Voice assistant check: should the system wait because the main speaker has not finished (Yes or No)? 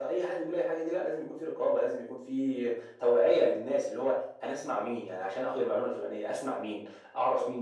Yes